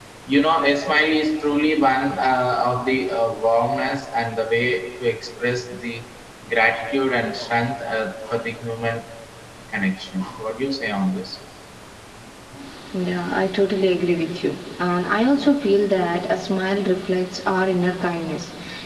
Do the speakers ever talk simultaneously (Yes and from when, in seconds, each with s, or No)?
No